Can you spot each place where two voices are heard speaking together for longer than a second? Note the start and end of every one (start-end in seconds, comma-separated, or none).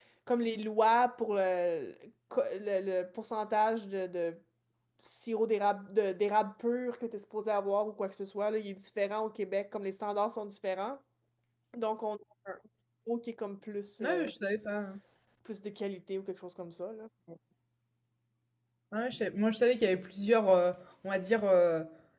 none